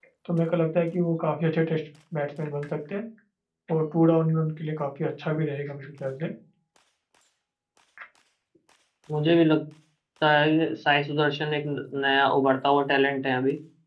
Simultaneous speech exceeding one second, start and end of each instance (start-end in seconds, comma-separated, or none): none